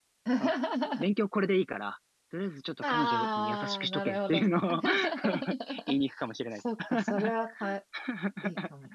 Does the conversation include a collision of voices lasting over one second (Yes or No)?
Yes